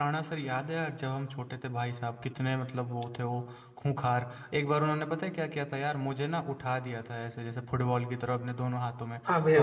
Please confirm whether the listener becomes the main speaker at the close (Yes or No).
No